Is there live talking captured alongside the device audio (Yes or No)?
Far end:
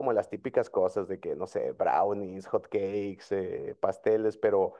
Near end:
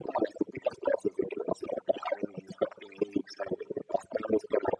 No